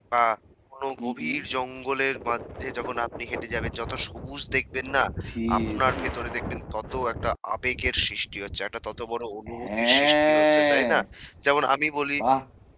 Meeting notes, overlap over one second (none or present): present